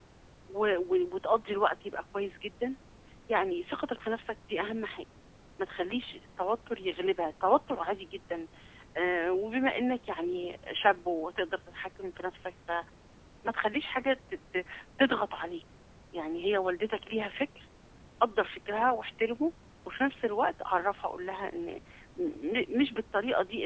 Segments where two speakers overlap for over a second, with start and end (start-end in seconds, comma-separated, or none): none